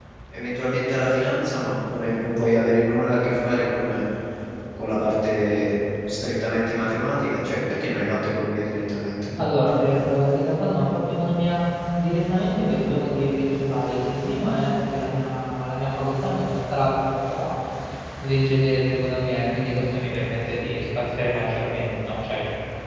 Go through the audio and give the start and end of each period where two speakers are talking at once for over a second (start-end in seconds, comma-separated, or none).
none